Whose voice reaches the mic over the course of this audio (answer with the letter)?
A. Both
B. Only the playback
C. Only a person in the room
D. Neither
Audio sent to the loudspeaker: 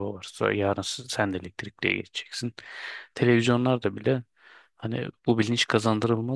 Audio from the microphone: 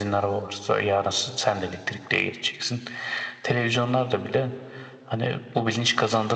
B